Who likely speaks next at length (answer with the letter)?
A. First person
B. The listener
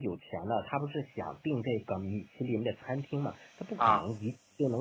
A